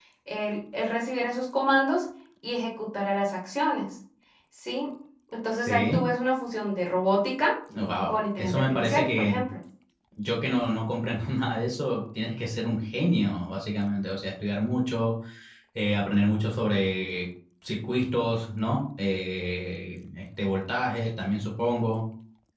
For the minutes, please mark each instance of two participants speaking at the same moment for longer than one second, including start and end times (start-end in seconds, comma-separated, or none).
8.1-9.4